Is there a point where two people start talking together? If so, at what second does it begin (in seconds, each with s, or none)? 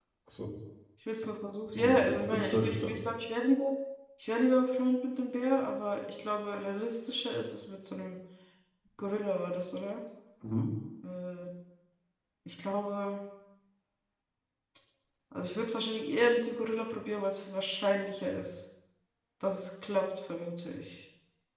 1.8 s